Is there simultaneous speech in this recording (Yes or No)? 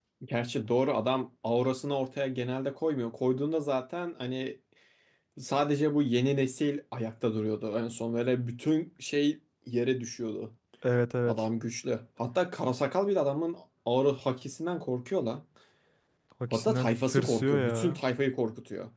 Yes